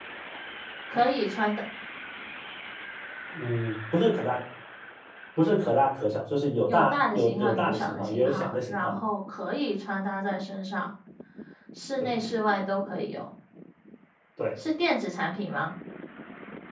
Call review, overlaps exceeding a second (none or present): present